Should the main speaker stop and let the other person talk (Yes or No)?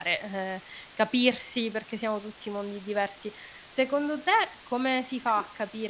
No